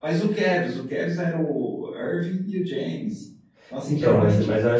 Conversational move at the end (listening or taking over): taking over